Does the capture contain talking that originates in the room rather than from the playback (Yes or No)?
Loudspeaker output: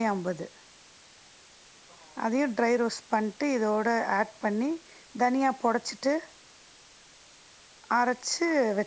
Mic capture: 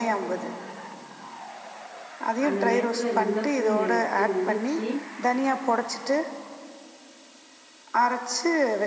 Yes